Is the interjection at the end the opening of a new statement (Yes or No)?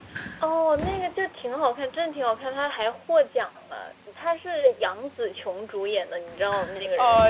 Yes